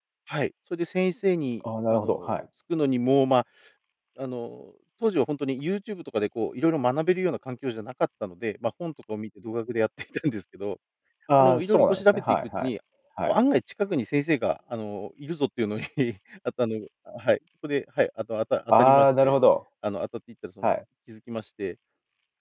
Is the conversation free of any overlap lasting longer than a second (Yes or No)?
No